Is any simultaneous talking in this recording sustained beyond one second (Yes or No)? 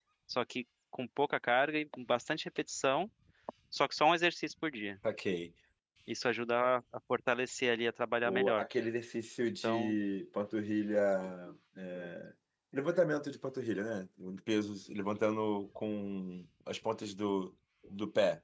No